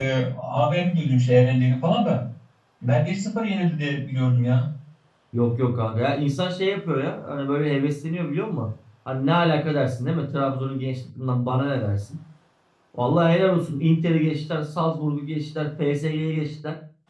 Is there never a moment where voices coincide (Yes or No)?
Yes